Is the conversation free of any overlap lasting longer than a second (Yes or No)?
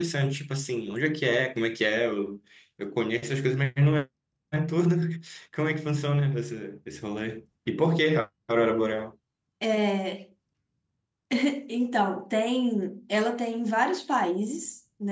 Yes